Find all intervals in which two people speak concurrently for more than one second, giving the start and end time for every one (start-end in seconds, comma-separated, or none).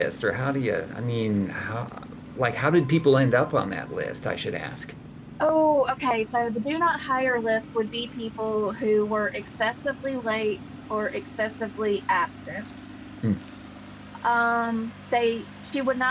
none